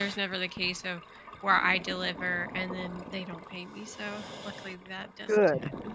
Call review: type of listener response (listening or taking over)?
taking over